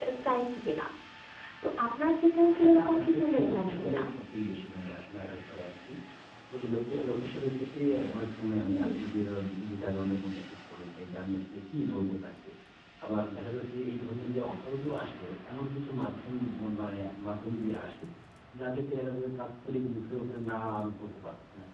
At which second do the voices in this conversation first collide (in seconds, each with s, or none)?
2.5 s